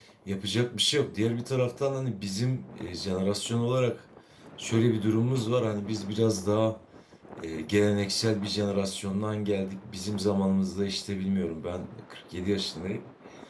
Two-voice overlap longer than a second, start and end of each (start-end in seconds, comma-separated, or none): none